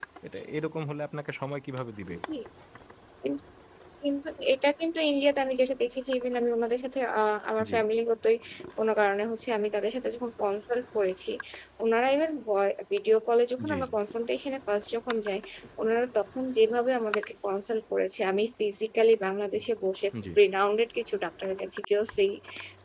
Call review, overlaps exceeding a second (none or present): none